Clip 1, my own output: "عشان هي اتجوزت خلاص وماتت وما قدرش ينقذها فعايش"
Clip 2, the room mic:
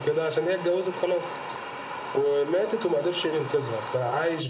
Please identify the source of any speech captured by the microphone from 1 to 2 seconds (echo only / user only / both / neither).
echo only